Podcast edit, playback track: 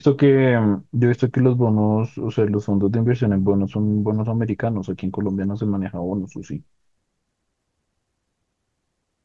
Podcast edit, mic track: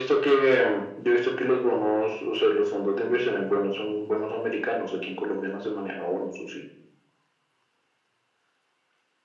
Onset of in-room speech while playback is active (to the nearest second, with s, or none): none